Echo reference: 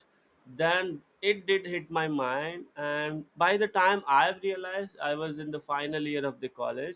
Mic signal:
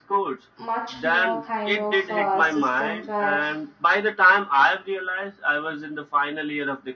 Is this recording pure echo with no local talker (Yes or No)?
No